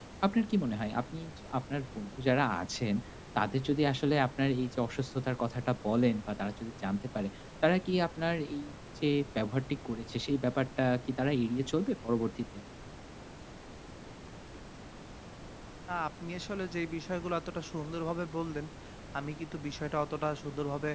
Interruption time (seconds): none

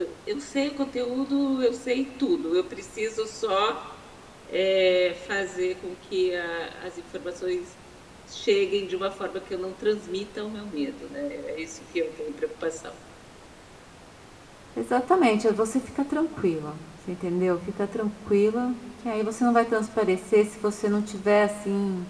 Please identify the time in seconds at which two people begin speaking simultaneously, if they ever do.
none

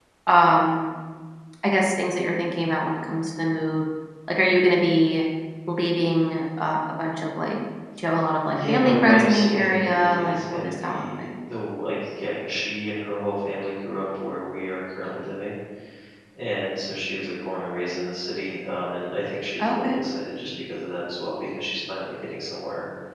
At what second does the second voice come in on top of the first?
8.5 s

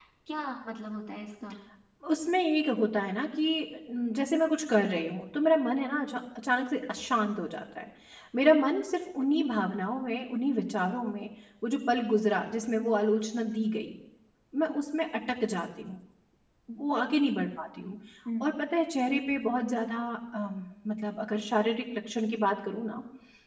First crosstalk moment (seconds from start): none

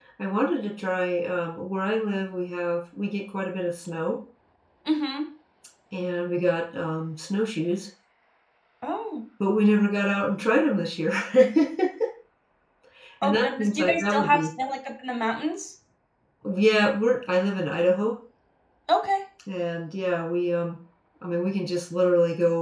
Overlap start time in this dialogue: 13.2 s

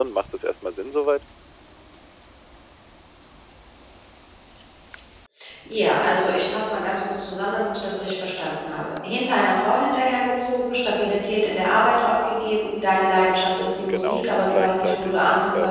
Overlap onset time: 13.9 s

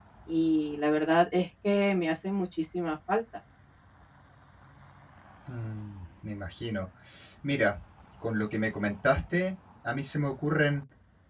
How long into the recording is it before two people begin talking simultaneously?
none

